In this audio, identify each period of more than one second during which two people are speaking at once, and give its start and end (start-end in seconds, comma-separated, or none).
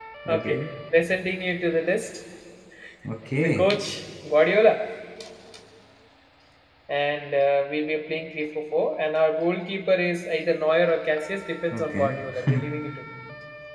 none